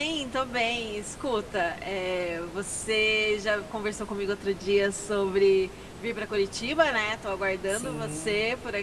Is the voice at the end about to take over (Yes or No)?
No